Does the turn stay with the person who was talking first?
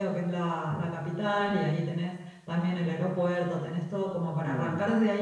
Yes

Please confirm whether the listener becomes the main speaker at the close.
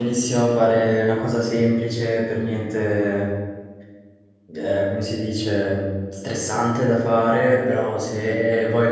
No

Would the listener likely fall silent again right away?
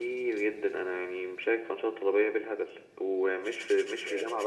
Yes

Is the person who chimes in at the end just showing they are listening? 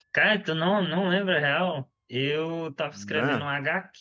Yes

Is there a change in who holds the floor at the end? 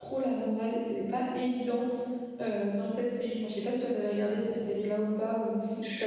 Yes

